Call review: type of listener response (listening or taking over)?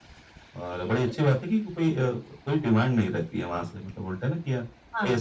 listening